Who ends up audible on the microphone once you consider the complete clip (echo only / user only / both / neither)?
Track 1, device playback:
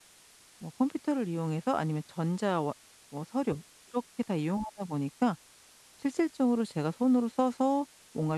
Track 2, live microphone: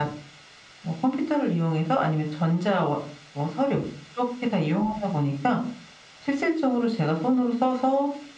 echo only